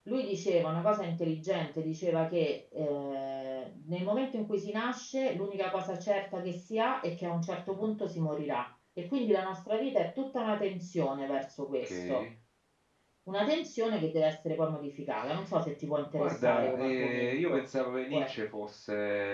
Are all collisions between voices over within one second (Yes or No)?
No